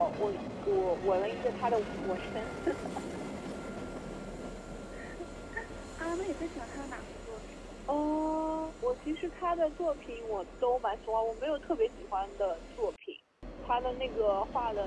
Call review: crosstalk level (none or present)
none